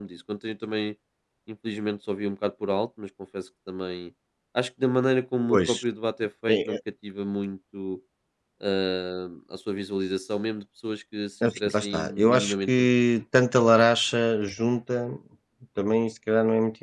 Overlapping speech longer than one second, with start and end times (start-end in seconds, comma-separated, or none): 11.4-13.0